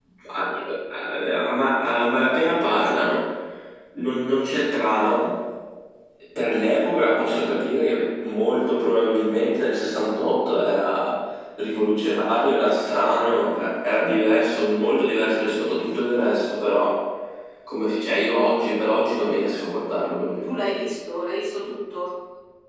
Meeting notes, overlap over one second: none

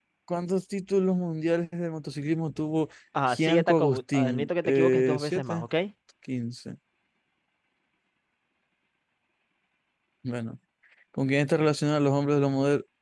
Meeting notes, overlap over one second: present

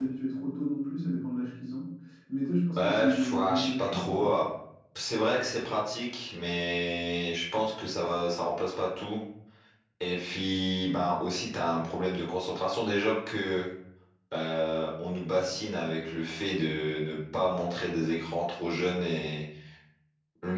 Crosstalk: present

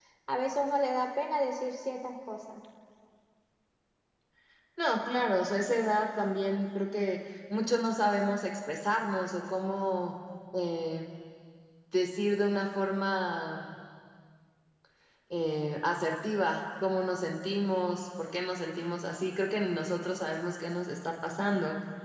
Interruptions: none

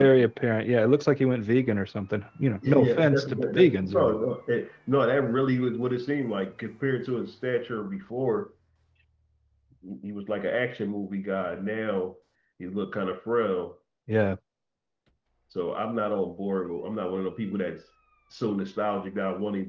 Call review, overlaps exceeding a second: present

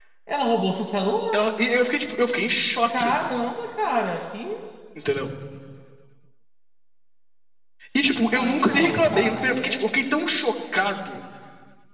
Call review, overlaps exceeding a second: present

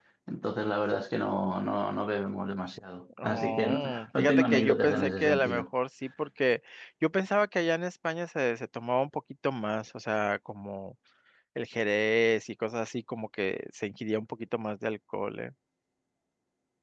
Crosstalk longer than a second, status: present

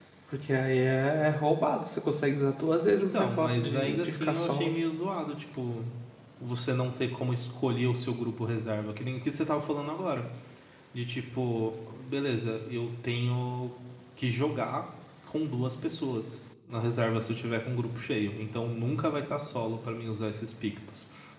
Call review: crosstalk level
present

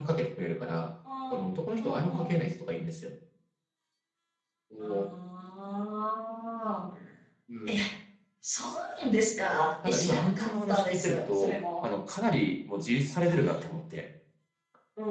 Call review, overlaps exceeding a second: present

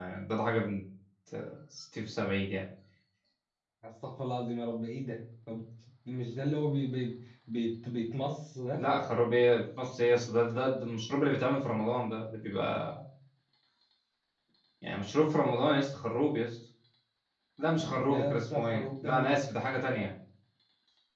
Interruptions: present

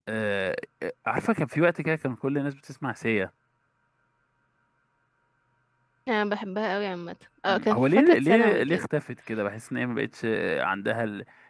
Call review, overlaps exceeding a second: present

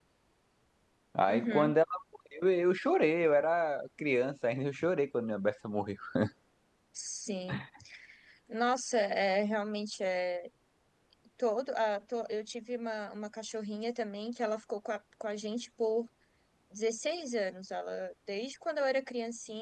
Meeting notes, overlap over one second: none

